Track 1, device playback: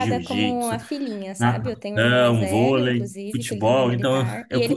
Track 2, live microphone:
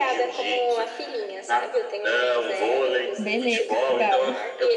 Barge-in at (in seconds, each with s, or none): 3.2 s